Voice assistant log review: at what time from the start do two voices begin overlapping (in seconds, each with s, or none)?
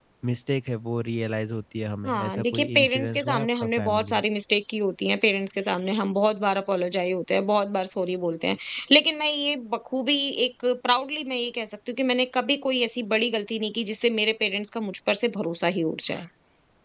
2.0 s